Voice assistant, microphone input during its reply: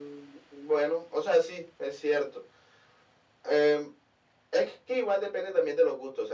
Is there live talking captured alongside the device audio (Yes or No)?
No